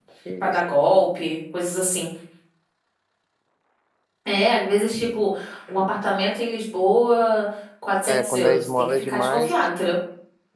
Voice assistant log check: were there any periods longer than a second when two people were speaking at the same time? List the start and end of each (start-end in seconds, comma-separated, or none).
8.1-9.6